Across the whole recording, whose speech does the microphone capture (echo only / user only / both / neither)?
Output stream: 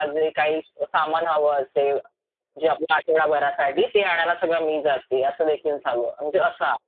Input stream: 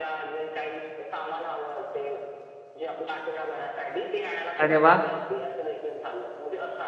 both